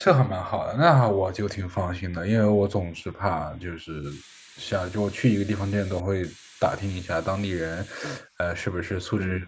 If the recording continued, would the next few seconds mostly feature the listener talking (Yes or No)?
No